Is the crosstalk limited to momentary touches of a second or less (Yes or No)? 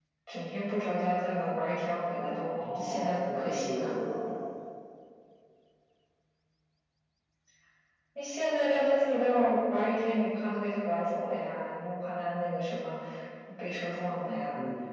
No